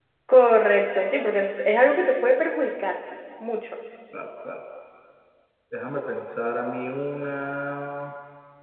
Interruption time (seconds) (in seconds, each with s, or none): none